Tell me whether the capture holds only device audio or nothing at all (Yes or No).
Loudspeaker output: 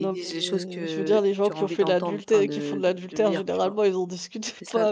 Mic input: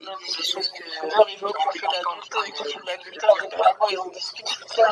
Yes